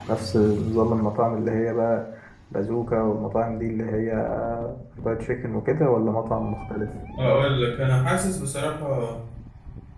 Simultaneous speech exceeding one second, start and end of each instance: none

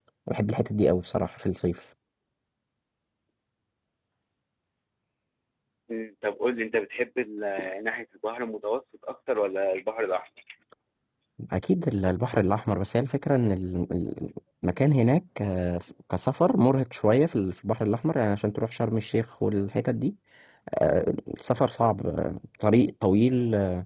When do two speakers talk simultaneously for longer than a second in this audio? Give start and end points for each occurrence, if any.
none

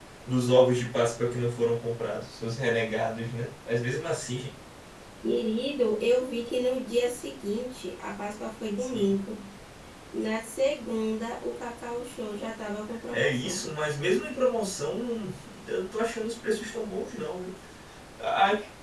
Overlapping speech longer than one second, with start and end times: none

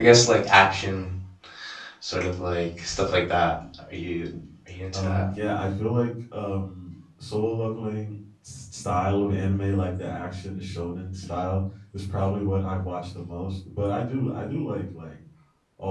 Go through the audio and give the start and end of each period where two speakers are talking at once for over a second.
none

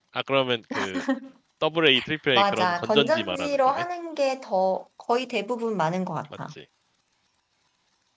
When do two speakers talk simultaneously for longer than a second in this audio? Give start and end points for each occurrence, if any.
2.4-3.8

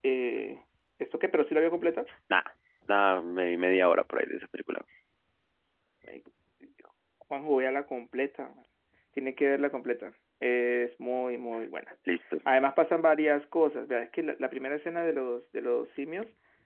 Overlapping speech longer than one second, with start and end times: none

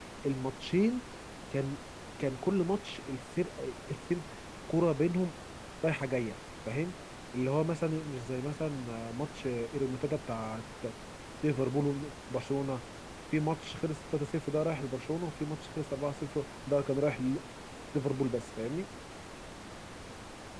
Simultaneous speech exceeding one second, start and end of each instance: none

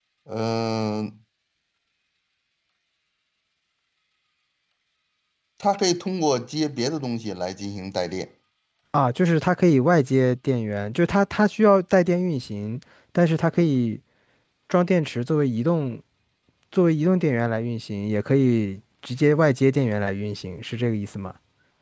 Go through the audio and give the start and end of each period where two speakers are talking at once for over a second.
none

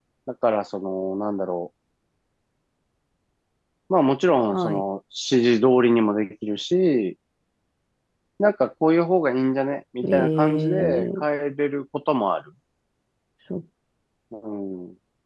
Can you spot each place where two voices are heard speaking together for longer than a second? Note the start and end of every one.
10.0-11.2

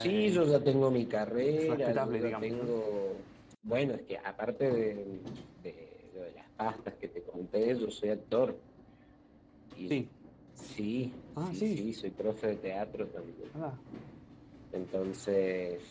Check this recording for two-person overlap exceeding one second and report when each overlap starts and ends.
1.6-2.8

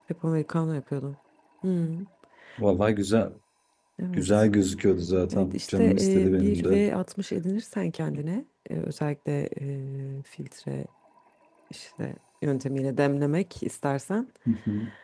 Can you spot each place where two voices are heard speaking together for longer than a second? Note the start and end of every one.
5.3-6.8

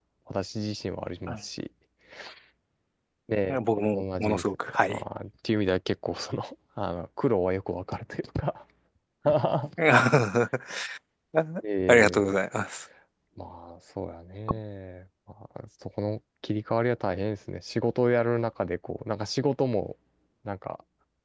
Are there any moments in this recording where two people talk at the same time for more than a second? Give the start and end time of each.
3.8-5.0

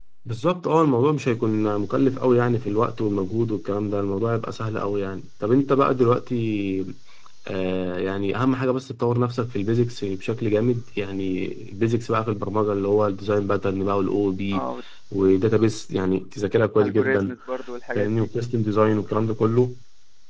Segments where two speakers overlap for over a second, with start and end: none

